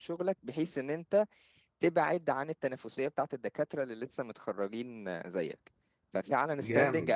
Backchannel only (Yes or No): Yes